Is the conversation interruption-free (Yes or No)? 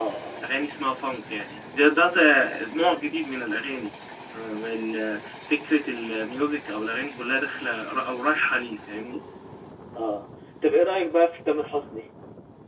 Yes